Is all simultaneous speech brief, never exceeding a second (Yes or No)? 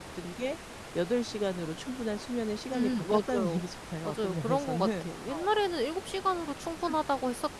No